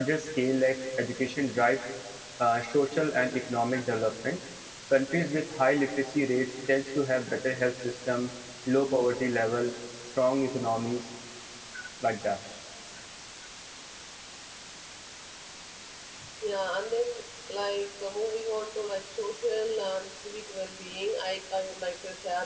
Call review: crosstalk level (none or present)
none